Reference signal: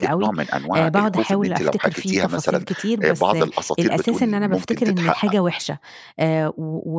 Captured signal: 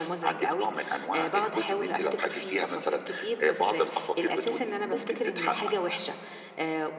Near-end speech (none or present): none